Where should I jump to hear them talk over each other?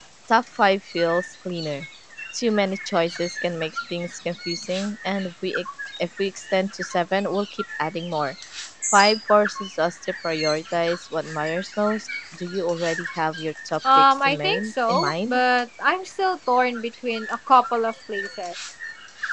13.8 s

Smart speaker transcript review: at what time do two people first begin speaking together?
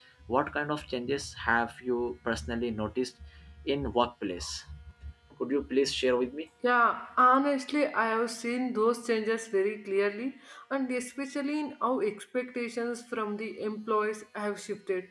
none

